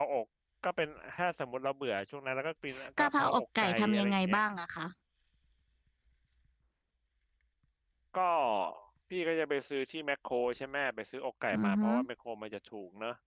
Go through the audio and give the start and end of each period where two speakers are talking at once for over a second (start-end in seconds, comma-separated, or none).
3.0-4.4